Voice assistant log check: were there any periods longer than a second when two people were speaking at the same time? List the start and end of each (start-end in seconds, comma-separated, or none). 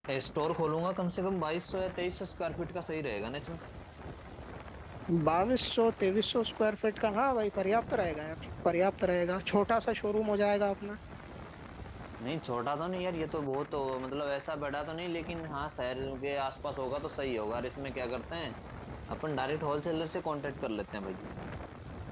none